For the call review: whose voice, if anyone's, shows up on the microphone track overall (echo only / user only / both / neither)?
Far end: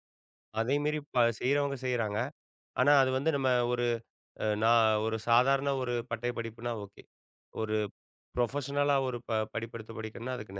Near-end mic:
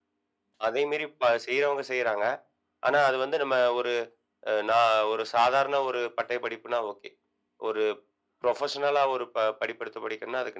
echo only